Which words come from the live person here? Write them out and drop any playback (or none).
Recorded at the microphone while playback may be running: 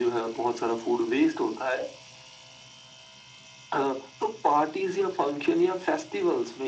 none